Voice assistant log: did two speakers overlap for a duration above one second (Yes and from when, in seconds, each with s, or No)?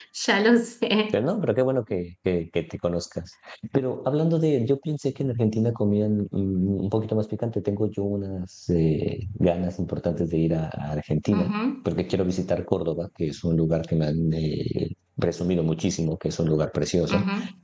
No